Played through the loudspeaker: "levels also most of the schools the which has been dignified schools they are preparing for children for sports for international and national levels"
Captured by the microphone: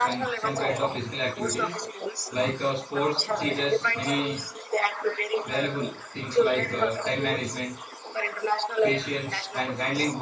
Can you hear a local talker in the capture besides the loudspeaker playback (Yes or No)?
Yes